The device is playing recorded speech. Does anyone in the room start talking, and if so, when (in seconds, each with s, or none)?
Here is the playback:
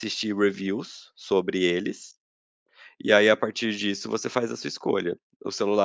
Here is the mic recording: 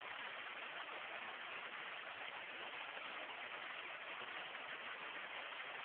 none